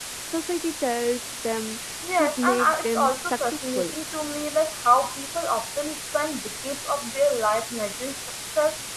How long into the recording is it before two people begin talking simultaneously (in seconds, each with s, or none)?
2.0 s